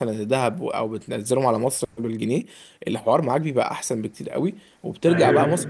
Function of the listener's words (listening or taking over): listening